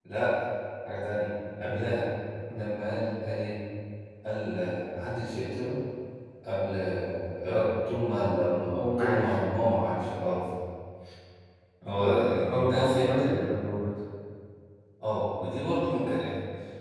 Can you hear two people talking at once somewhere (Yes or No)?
Yes